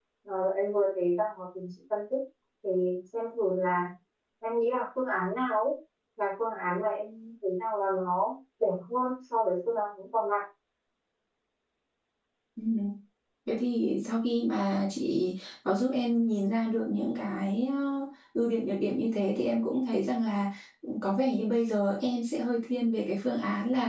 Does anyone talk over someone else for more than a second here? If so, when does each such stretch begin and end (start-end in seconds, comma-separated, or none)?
none